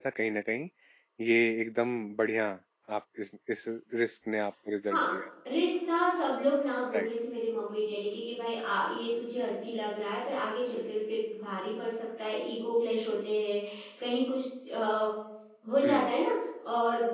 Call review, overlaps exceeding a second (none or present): none